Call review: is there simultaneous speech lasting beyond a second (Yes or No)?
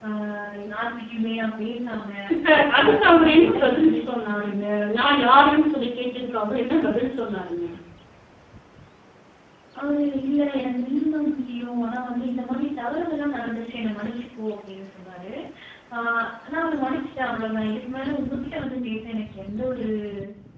Yes